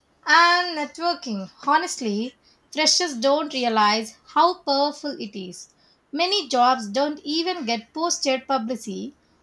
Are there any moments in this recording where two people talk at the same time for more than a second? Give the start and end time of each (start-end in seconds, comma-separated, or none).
none